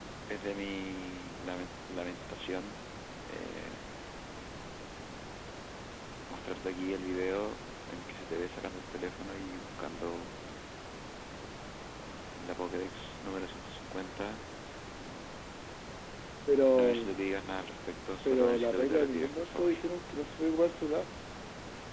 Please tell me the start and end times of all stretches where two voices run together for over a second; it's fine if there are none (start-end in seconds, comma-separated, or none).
18.2-19.7